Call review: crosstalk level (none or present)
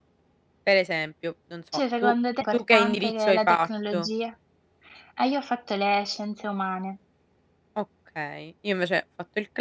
present